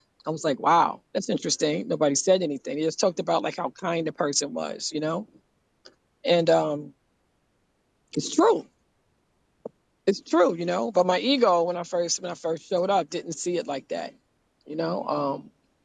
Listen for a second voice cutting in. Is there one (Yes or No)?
No